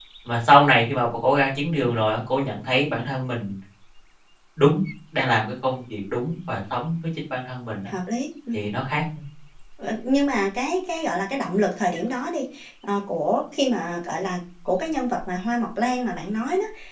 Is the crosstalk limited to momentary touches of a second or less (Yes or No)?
Yes